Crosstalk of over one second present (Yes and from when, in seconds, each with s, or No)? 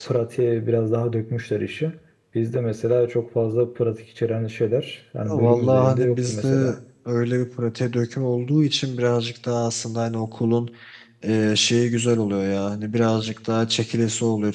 Yes, from 5.3 s